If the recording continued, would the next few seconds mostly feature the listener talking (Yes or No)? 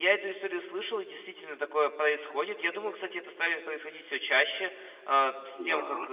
No